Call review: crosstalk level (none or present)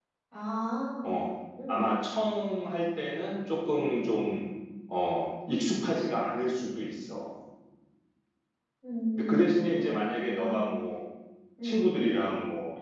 present